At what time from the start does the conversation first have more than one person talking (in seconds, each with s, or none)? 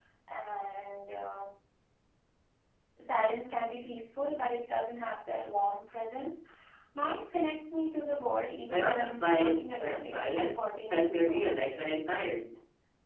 8.7 s